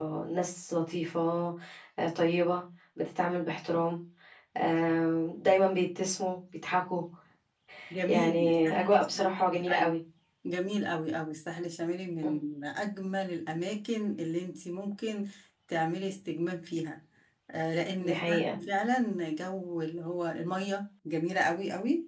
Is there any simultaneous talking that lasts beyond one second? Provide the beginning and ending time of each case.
8.1-9.9

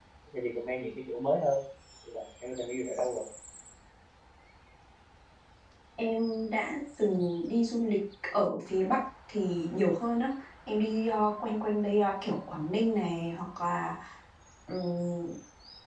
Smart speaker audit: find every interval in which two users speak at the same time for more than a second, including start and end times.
none

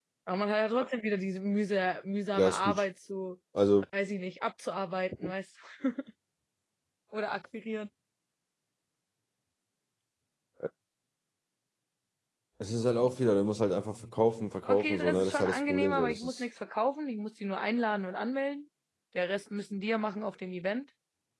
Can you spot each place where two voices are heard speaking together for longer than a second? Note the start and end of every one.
14.7-16.4

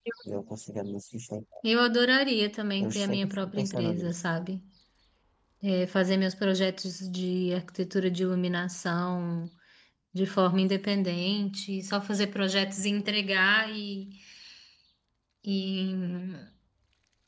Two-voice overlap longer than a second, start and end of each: 2.8-4.2

